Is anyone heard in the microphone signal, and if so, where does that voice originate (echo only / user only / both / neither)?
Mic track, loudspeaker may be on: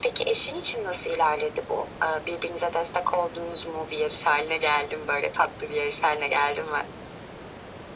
echo only